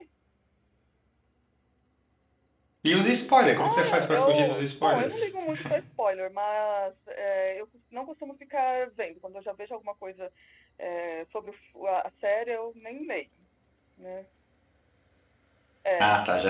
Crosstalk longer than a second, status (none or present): present